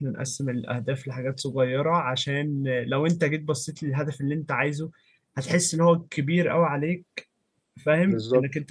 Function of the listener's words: listening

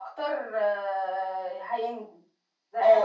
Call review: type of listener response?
taking over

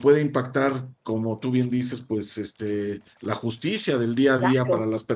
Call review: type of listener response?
listening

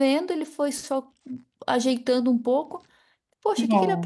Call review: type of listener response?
listening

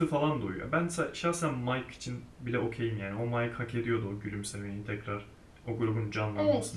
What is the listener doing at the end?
taking over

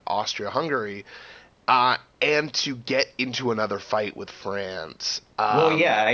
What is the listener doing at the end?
taking over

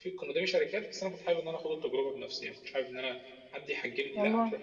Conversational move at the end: listening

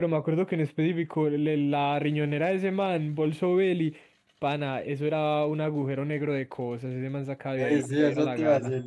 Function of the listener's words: taking over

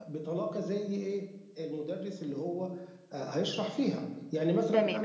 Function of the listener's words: taking over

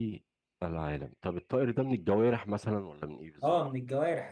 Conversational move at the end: taking over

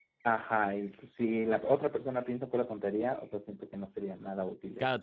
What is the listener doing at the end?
taking over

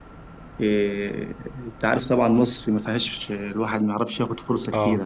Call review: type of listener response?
listening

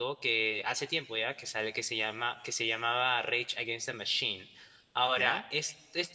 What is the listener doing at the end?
listening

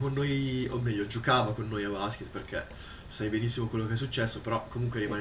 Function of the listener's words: listening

